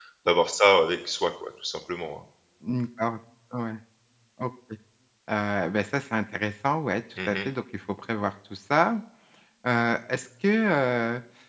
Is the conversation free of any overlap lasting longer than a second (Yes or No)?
Yes